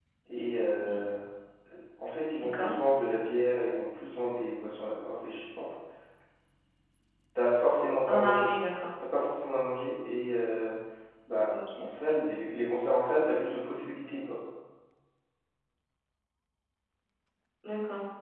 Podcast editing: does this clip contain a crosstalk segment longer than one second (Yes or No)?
No